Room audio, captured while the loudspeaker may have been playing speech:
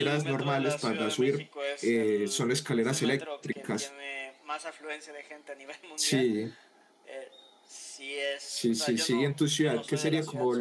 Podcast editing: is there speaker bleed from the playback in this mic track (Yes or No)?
Yes